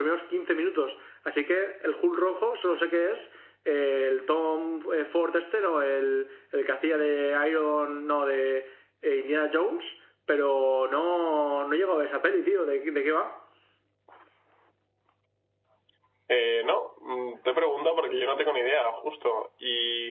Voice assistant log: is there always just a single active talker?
Yes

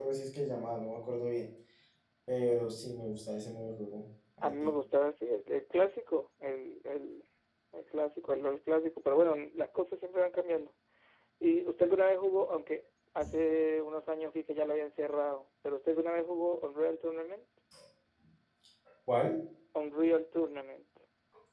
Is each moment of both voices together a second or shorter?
Yes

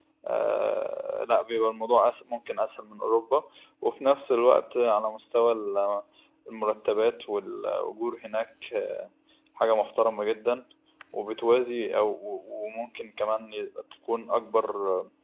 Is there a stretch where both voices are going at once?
No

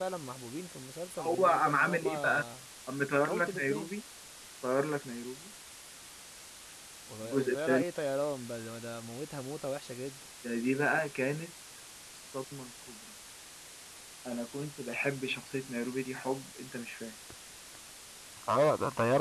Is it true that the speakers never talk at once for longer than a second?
No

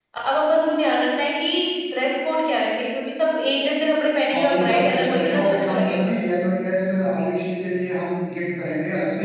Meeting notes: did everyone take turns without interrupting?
No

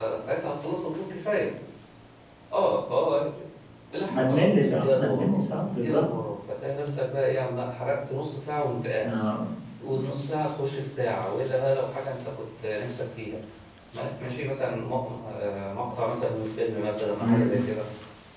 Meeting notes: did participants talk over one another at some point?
Yes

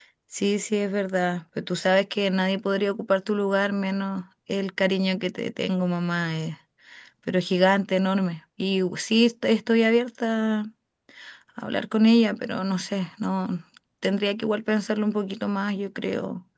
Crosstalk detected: No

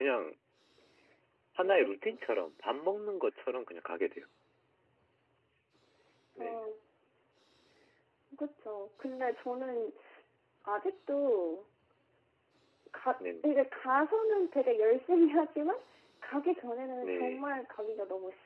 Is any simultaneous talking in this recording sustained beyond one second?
No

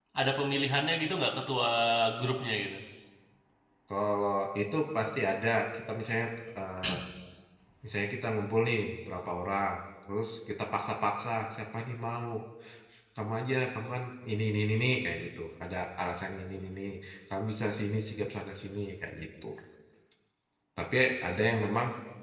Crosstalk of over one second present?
No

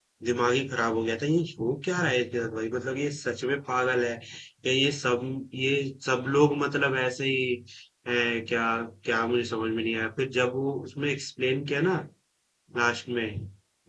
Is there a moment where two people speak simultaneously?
No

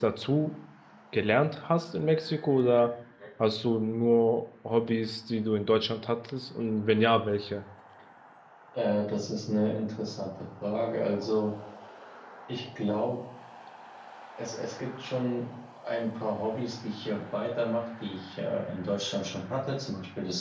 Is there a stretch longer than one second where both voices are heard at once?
No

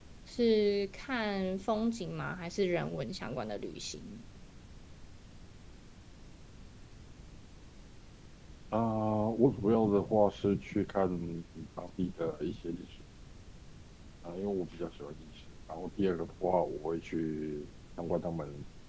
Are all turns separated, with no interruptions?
Yes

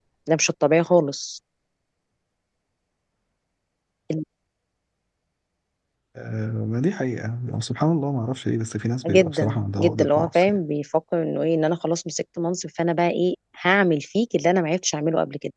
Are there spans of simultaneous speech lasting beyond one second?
Yes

